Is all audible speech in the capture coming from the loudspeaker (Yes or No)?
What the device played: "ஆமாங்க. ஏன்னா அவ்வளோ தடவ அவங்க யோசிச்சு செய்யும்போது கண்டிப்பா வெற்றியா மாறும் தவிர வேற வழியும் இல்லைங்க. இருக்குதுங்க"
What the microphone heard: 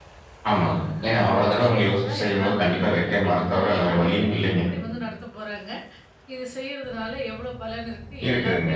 No